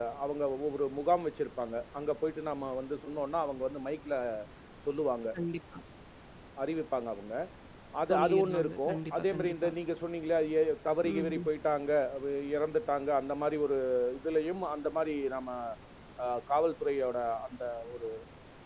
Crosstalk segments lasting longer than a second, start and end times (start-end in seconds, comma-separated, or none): 8.1-9.7